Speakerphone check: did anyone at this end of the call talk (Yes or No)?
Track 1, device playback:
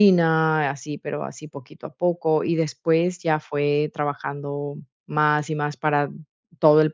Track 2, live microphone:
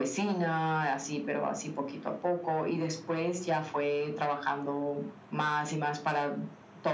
No